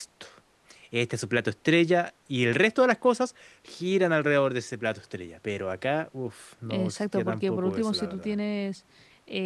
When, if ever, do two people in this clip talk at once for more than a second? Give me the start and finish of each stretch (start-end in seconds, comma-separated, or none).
6.7-8.3